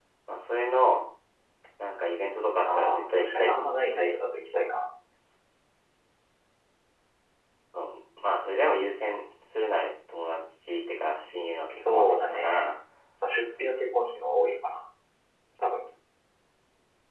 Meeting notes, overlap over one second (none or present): present